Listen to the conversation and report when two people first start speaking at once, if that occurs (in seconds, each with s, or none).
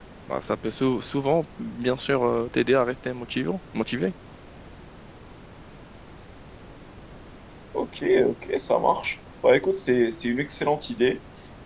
none